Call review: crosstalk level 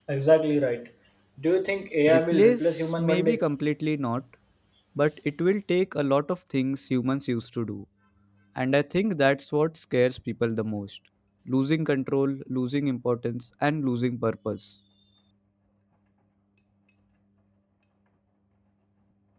present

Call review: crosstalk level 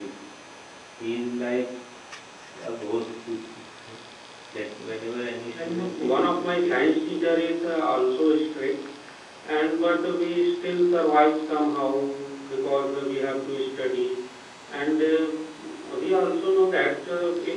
present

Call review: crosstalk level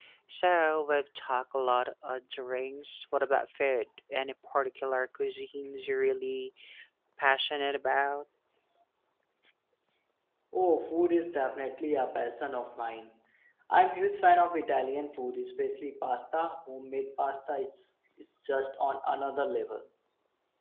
none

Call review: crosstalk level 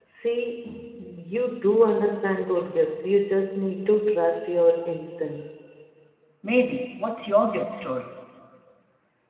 none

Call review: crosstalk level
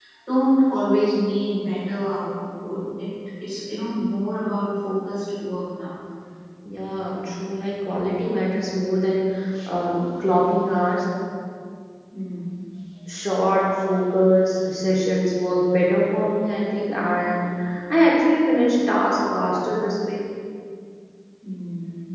none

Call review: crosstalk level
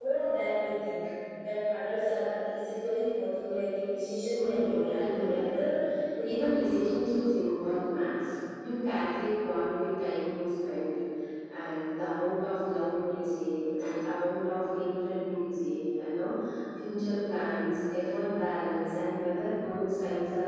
present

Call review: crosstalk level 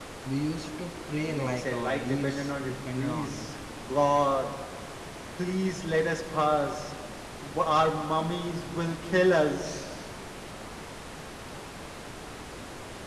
present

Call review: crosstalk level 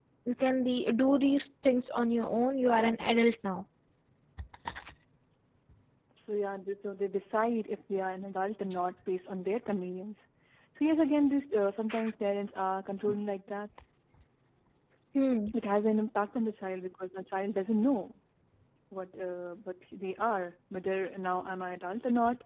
none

